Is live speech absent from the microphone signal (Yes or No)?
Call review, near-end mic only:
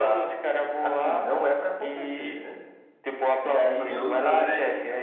No